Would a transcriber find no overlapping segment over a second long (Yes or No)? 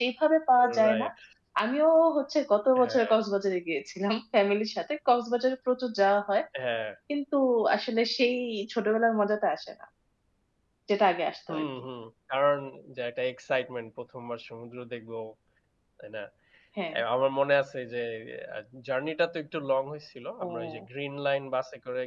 Yes